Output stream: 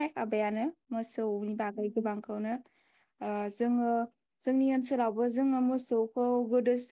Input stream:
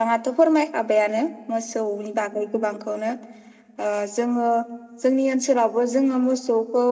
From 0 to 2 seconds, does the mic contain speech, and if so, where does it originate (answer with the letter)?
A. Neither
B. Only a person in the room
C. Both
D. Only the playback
D